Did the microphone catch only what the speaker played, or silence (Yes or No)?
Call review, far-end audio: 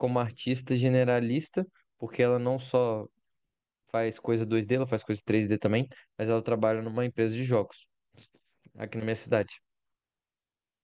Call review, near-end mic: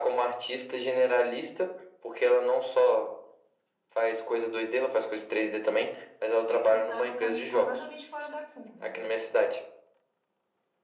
No